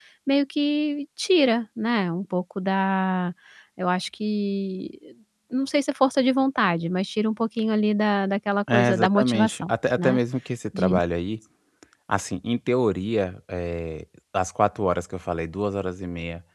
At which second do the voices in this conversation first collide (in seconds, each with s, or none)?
8.7 s